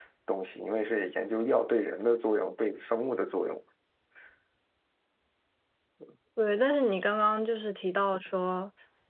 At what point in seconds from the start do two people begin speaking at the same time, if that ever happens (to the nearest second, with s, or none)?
none